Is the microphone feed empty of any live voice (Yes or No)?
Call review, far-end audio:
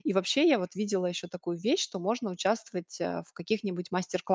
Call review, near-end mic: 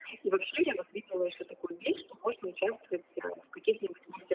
Yes